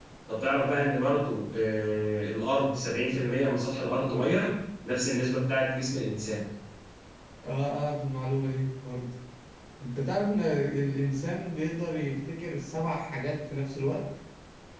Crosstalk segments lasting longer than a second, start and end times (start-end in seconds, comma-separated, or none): none